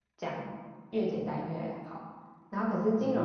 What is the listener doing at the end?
listening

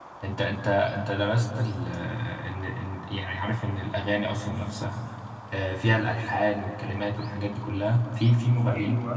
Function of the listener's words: taking over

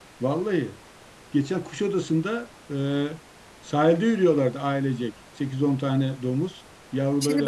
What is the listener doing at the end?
taking over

